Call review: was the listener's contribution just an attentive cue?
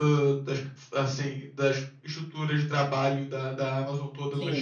No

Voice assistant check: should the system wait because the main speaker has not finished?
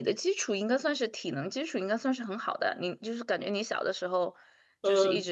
No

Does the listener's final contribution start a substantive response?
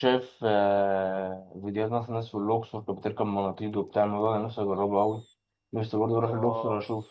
No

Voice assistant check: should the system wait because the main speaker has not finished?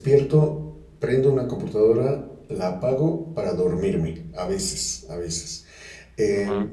Yes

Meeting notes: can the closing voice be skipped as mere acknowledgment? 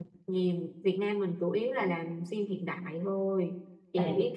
Yes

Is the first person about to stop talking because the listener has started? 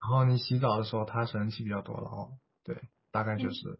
Yes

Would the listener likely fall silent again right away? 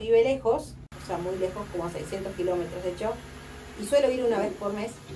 Yes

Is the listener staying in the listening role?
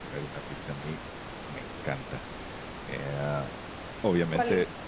Yes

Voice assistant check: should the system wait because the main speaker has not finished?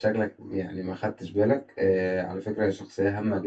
Yes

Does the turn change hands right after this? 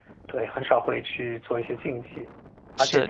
No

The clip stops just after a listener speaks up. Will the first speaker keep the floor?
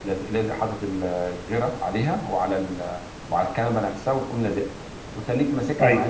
Yes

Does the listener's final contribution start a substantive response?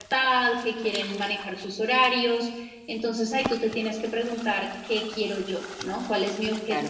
Yes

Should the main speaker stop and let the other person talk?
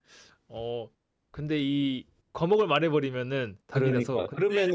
Yes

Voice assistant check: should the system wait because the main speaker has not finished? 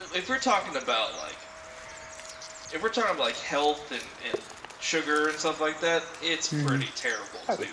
No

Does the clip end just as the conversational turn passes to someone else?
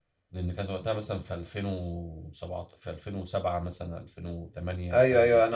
Yes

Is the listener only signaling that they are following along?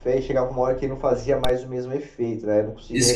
No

